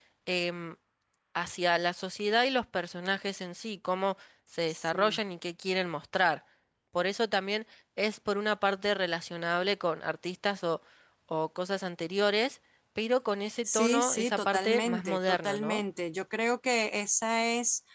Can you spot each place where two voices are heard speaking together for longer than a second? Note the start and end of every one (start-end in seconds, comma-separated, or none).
13.6-15.8